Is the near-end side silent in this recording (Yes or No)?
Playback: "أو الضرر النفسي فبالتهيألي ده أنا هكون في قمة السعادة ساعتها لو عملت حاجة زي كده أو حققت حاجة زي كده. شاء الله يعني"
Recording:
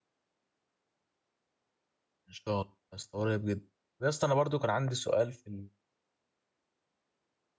No